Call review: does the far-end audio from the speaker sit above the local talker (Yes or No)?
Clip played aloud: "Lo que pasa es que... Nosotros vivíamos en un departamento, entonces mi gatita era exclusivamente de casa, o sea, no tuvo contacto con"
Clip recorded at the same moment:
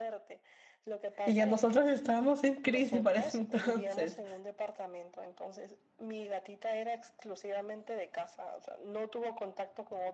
No